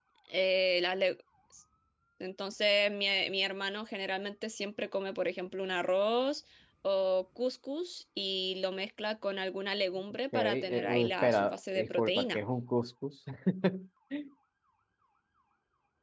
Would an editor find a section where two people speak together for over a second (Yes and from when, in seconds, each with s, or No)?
Yes, from 10.3 s